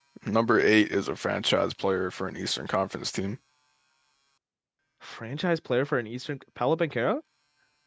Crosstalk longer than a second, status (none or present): none